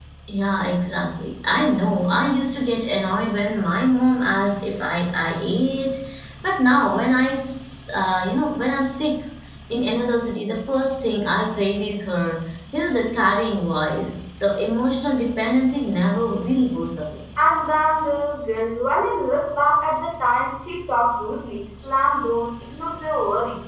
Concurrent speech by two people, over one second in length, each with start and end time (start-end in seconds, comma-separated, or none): none